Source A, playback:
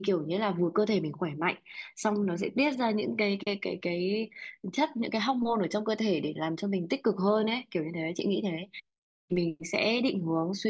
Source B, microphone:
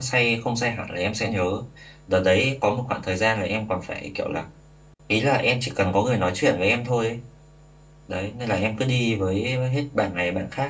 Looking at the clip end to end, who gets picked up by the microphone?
user only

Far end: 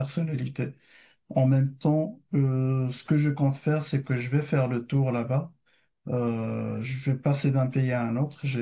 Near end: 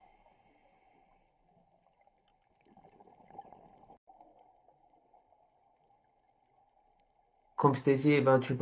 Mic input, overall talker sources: user only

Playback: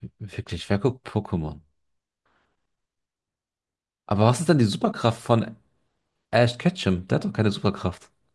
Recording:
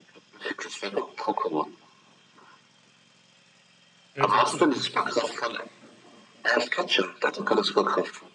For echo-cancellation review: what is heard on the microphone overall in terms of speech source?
both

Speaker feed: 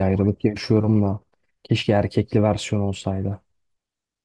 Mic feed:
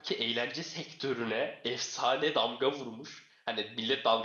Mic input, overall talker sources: user only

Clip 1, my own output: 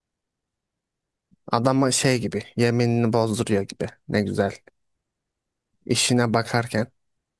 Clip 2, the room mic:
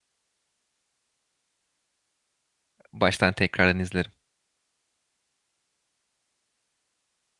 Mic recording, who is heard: user only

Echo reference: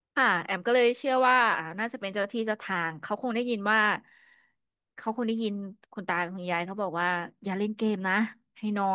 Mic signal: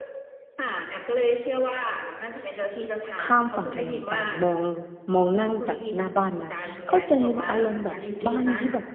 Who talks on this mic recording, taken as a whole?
both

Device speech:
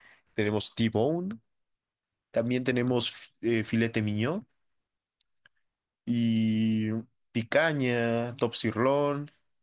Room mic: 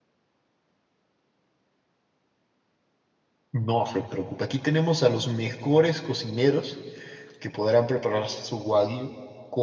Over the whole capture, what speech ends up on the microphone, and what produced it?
user only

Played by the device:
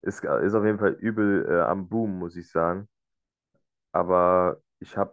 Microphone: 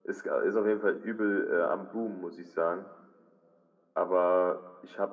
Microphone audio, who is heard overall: echo only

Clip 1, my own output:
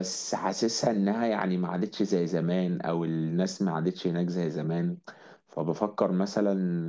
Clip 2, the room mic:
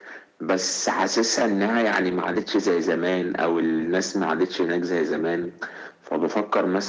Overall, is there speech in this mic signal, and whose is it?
echo only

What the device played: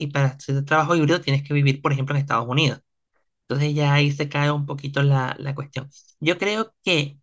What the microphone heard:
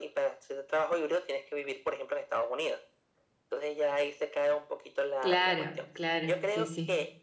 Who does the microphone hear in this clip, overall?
both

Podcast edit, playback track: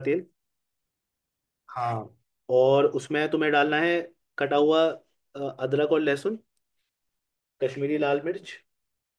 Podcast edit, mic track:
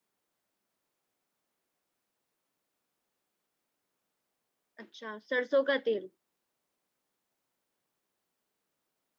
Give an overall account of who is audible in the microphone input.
user only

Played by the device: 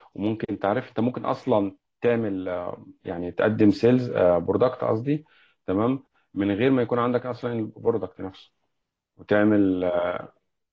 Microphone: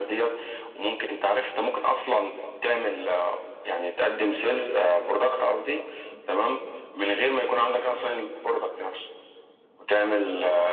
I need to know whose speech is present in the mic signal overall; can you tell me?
echo only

